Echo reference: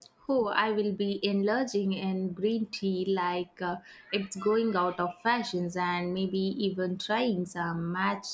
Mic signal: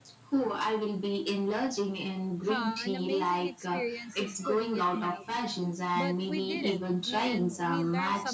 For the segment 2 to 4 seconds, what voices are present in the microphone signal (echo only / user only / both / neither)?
both